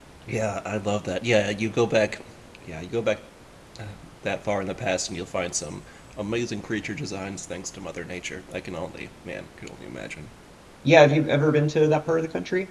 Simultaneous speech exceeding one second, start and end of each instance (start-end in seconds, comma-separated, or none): none